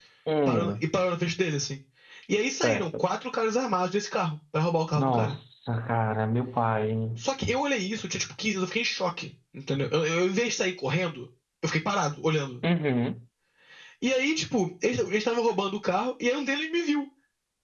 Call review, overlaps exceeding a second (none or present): none